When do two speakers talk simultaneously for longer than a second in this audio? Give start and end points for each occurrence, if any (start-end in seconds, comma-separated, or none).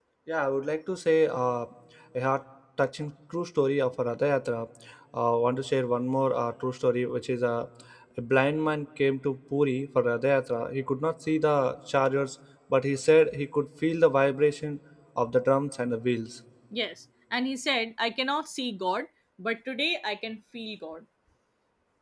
none